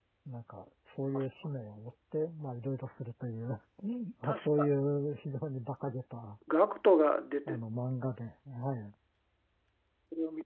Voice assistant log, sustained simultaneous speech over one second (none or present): none